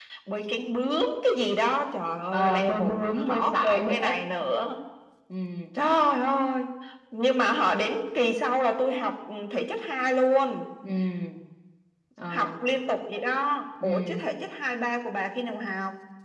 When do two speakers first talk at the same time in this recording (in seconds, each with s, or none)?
2.3 s